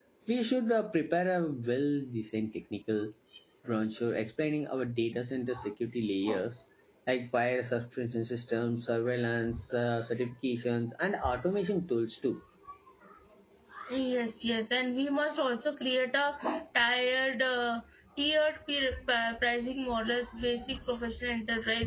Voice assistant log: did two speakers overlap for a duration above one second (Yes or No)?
No